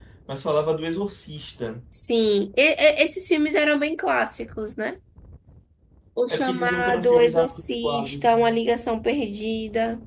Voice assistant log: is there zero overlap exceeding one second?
No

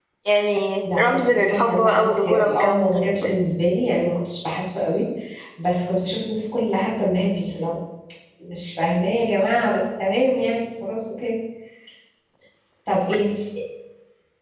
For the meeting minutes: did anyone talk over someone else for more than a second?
Yes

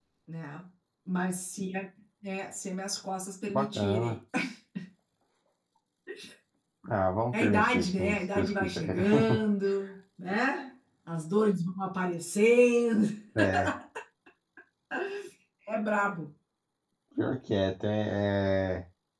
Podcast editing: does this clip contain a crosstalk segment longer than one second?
Yes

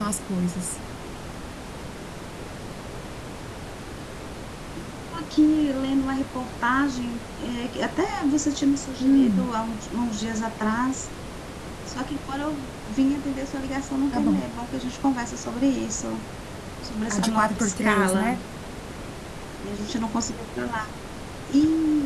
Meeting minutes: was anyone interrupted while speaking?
Yes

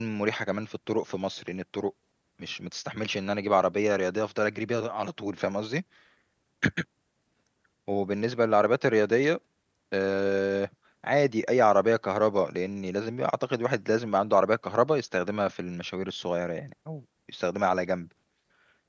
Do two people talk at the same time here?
No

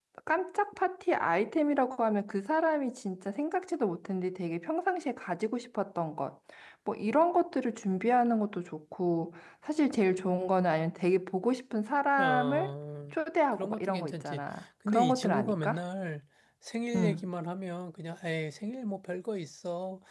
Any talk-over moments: Yes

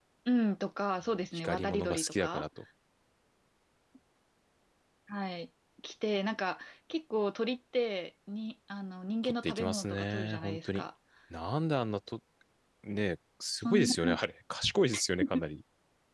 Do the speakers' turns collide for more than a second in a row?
Yes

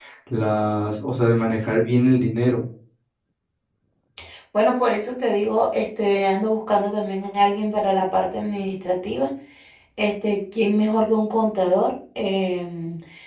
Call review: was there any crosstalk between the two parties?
No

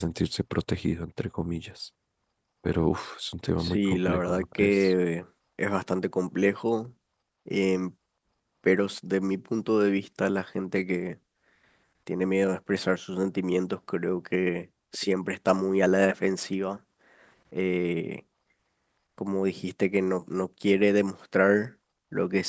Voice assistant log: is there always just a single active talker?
No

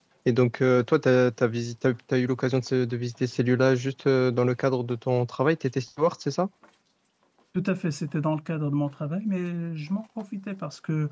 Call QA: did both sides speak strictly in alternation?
Yes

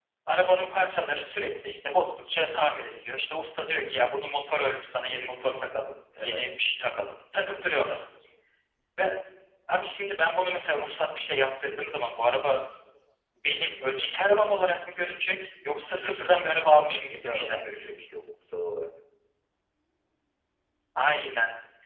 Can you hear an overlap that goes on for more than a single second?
Yes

